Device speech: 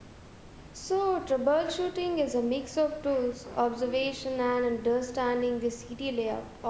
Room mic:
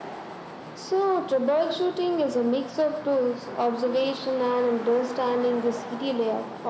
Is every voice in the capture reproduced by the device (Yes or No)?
Yes